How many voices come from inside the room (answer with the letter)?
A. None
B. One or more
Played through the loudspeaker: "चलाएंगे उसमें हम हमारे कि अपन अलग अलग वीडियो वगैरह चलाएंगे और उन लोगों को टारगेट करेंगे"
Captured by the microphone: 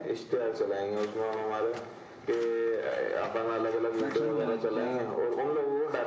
B